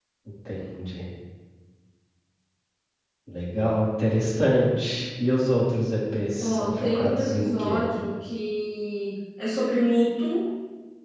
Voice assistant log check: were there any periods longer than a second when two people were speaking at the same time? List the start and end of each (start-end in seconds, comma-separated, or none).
6.4-7.8